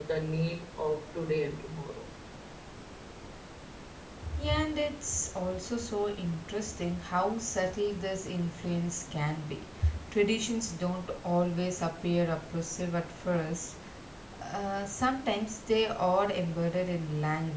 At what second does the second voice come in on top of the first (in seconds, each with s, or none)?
none